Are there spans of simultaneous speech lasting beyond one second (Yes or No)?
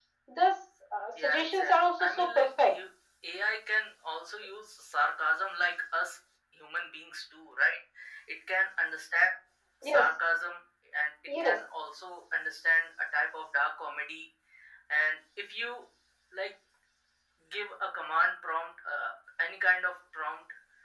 Yes